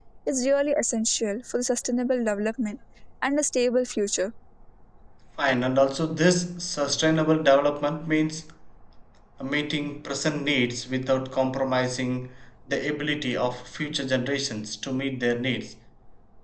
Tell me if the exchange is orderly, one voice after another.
Yes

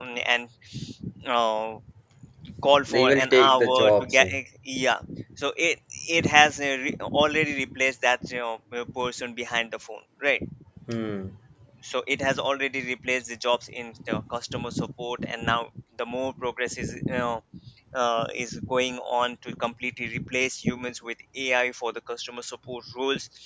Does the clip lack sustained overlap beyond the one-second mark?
No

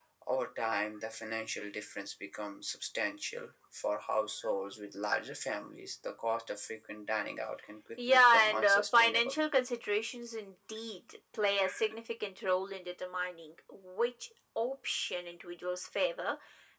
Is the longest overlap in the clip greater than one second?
Yes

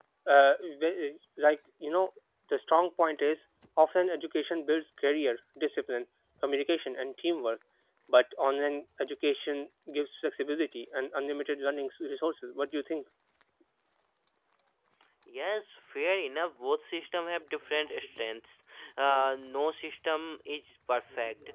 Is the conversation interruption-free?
Yes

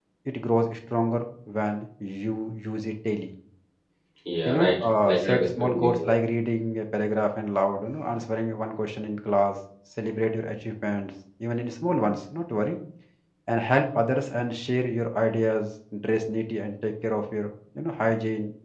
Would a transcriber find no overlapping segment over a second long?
No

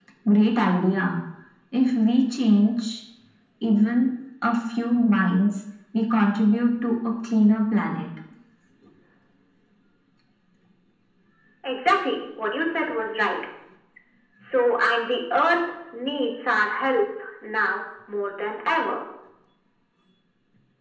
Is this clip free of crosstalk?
Yes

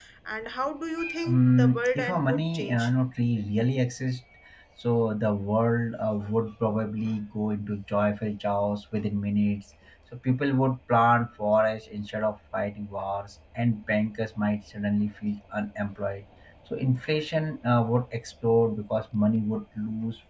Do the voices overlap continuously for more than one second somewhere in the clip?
Yes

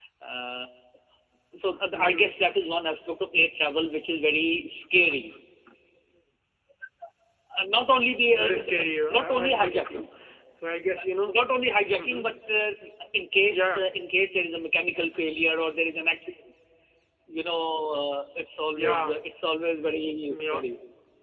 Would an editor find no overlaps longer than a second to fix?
No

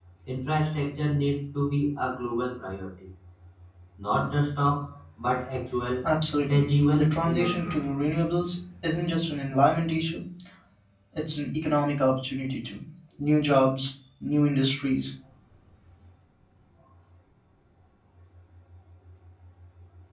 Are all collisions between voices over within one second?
No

